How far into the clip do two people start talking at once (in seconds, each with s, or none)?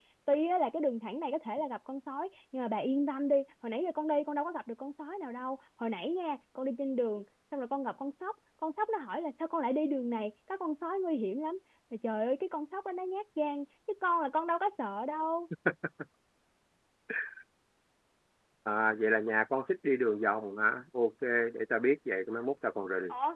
none